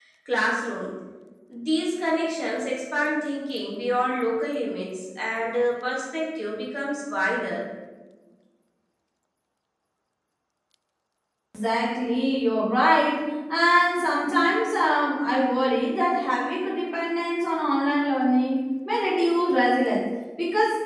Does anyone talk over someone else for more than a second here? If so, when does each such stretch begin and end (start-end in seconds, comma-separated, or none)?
none